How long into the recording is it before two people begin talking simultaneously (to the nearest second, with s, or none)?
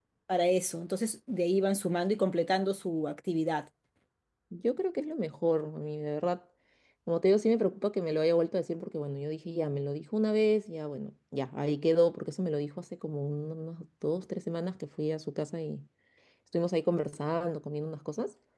none